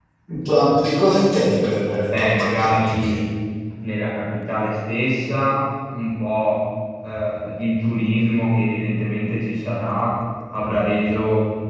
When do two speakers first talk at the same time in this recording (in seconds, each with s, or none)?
2.0 s